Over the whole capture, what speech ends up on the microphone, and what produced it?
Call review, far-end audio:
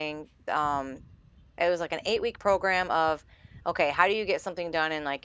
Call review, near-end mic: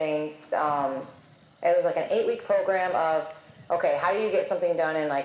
echo only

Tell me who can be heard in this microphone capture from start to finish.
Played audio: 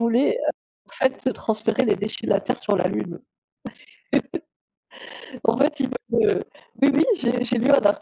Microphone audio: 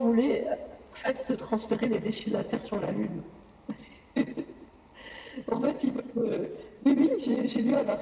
echo only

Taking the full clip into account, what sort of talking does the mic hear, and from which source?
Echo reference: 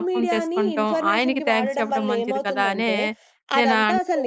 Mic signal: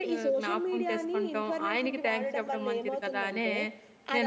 echo only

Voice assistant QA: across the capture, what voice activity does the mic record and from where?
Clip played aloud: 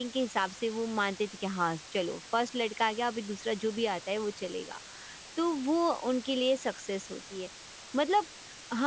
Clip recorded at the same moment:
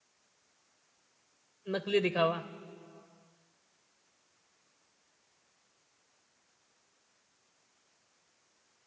user only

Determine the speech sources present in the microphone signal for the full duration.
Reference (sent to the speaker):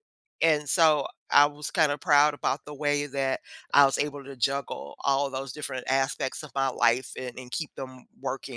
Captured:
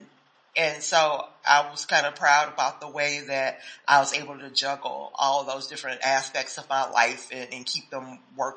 echo only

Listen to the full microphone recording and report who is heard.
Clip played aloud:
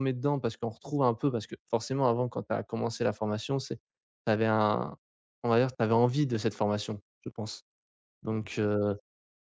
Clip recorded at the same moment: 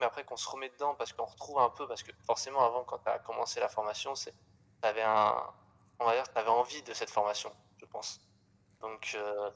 echo only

